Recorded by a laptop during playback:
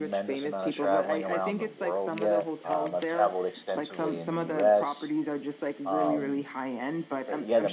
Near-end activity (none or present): present